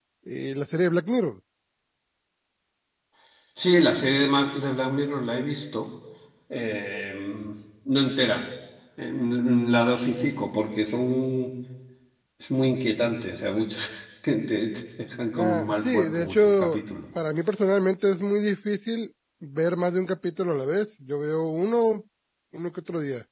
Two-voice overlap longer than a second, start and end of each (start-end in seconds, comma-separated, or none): 15.4-16.8